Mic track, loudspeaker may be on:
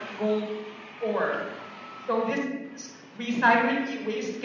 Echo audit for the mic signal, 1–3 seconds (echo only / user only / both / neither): echo only